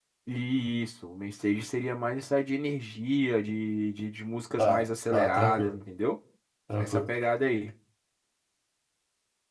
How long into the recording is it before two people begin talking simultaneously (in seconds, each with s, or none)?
4.6 s